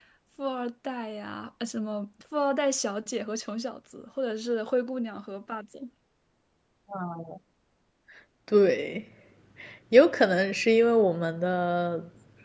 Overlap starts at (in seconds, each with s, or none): none